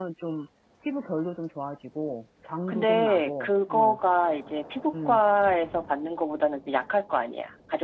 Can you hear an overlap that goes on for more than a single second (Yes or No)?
Yes